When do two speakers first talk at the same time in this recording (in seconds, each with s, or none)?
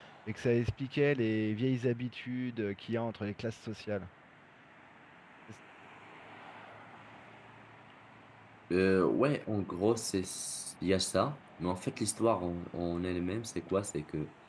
none